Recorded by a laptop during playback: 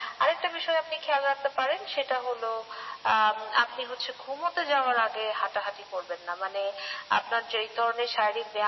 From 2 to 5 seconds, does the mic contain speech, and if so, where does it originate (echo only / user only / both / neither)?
echo only